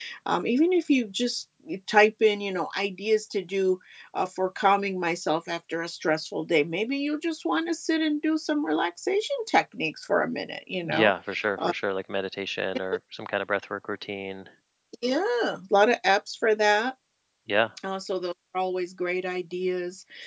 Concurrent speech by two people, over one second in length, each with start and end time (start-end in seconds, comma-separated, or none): none